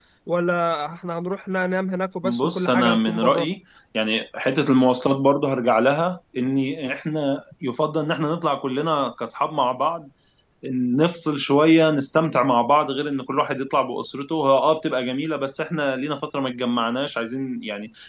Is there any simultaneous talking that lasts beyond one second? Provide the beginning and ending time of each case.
2.2-3.5

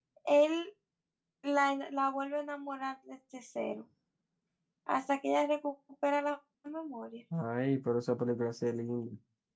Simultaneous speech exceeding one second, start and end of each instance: none

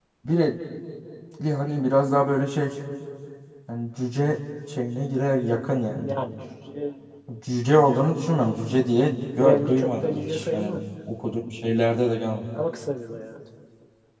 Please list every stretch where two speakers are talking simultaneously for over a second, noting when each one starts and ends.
9.4-10.8

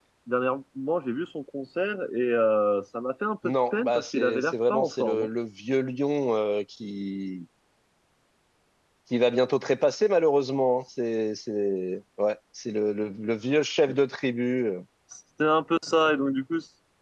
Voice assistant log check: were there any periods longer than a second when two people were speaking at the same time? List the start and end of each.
3.4-5.3

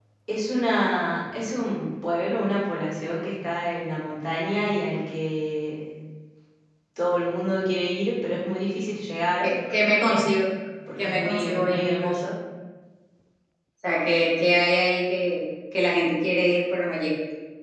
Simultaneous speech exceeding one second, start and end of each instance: 11.0-12.2

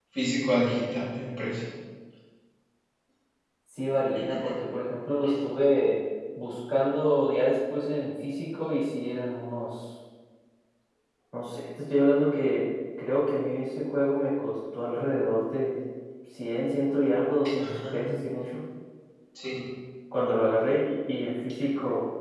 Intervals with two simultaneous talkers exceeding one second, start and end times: none

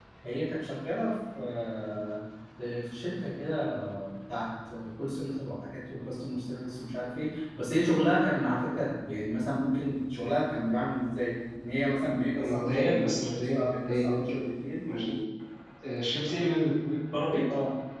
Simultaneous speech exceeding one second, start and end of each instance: 12.4-14.4

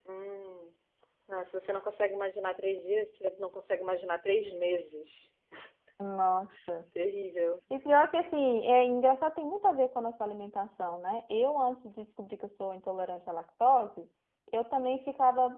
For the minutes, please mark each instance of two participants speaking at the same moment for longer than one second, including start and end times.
none

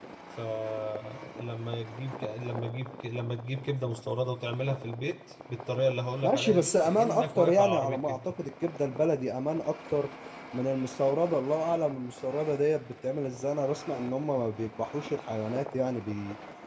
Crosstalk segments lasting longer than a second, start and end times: 6.2-8.2

